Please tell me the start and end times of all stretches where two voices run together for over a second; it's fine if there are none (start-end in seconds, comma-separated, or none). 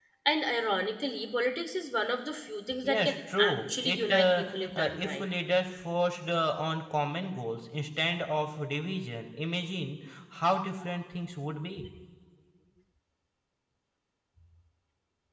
2.8-5.2